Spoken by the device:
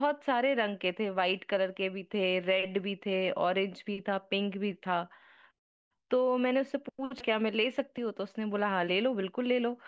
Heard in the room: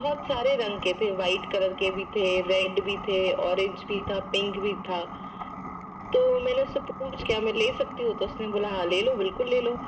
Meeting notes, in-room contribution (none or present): none